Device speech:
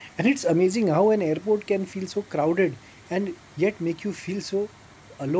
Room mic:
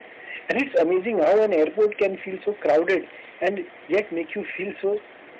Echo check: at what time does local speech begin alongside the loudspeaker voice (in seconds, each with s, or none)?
none